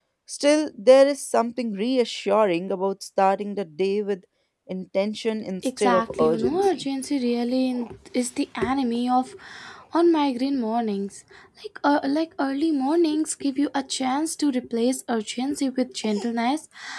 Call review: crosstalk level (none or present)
present